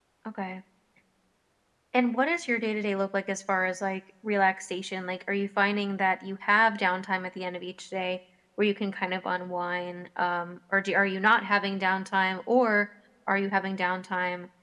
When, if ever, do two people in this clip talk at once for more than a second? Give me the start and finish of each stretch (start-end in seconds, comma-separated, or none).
none